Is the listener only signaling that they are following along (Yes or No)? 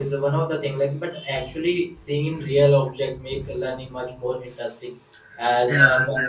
Yes